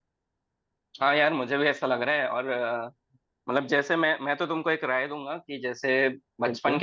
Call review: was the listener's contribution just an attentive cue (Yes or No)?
Yes